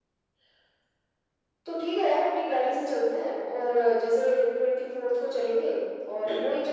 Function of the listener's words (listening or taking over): listening